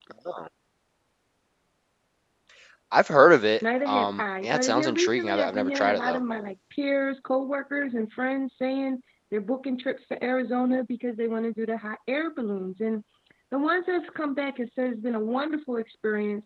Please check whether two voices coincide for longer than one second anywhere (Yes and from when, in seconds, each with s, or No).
Yes, from 3.6 s